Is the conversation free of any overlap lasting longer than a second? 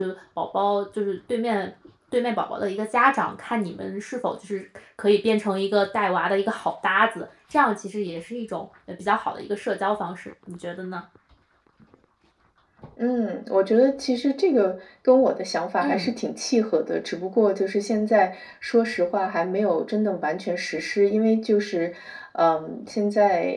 Yes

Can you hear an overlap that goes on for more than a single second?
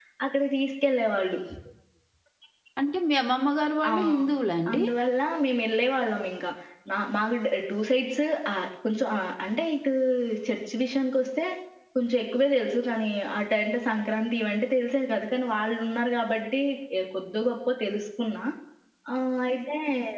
No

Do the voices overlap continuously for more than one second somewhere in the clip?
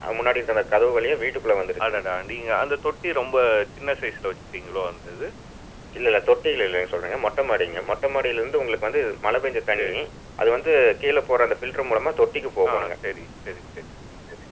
No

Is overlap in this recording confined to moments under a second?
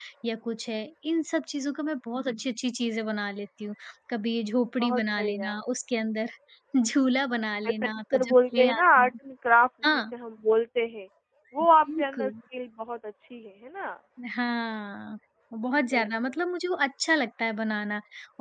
No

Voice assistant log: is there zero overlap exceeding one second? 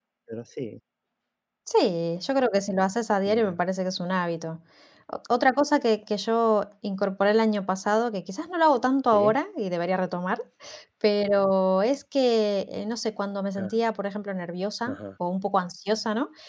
Yes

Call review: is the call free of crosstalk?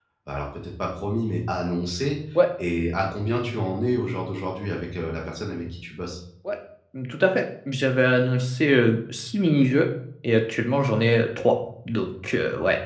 Yes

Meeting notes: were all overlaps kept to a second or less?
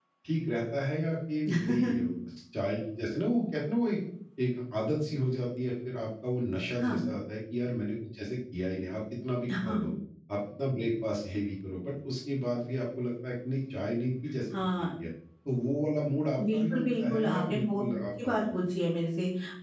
No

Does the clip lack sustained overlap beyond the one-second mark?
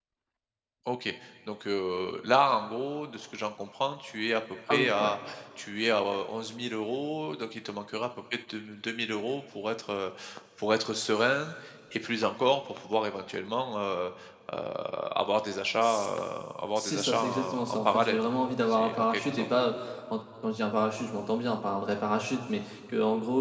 No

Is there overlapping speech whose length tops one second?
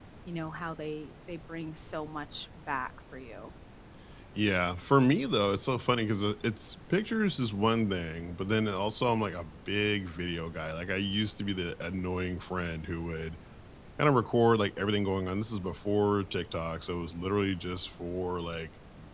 No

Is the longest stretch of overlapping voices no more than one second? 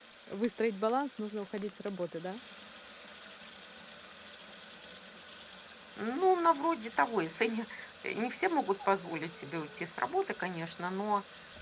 Yes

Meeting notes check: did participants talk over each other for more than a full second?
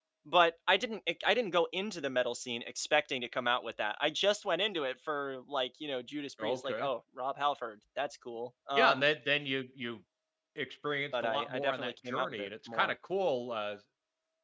Yes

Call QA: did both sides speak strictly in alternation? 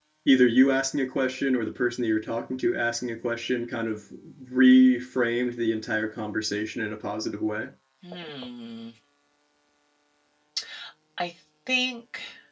Yes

